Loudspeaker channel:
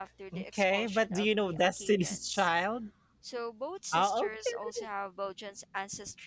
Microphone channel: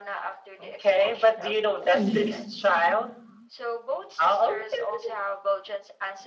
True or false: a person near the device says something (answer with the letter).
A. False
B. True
B